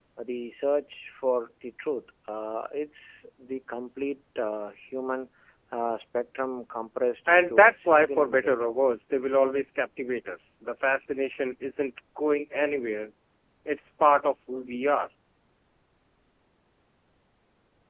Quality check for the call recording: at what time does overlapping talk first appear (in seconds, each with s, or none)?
7.3 s